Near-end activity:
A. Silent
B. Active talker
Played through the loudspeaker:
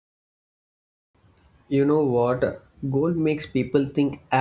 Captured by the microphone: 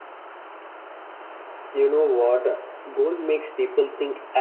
A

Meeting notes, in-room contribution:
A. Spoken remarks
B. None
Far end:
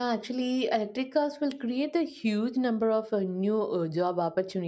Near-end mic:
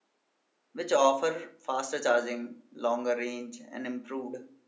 A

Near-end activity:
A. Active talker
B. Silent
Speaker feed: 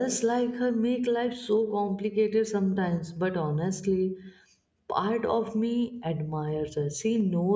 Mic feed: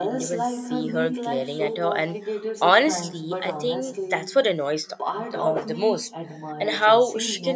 A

